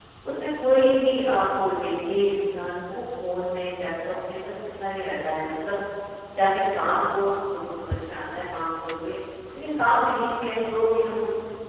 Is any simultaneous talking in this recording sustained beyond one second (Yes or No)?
No